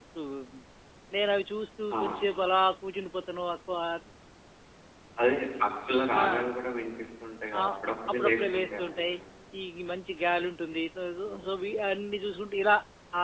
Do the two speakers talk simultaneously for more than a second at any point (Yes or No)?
Yes